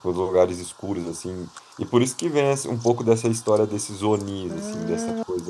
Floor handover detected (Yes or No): No